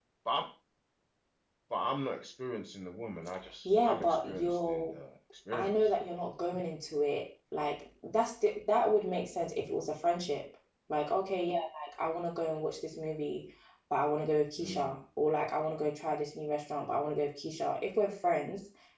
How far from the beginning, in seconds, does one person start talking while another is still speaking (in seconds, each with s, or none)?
3.6 s